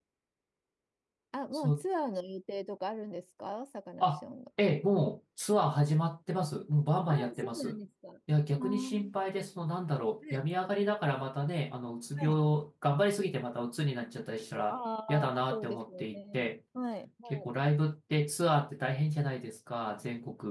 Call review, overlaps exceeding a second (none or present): present